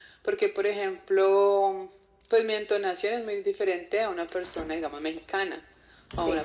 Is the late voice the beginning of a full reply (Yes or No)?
No